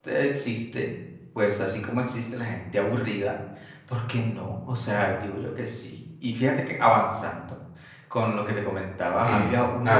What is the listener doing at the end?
taking over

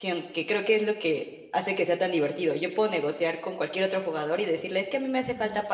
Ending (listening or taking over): listening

